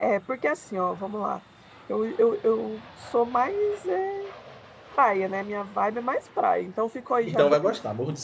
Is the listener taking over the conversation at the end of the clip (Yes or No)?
Yes